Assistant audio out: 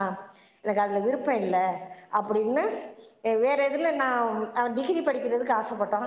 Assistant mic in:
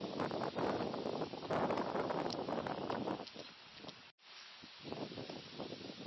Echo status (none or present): none